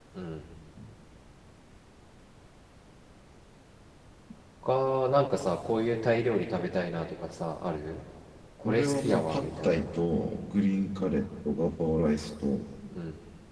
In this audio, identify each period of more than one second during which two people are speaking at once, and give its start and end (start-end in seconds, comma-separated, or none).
8.6-9.9